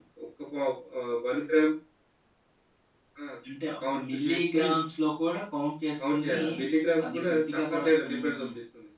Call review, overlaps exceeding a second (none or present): present